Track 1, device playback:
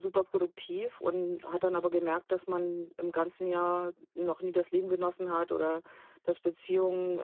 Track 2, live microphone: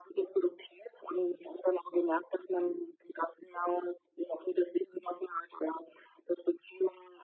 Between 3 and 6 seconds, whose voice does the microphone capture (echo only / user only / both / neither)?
echo only